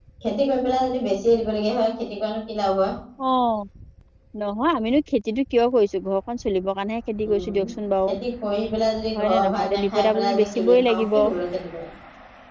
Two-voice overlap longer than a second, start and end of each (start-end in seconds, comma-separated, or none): 9.1-11.1